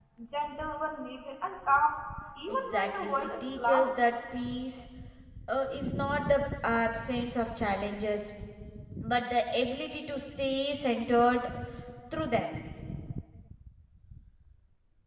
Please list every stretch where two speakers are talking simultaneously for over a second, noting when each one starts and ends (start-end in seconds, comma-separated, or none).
2.5-3.9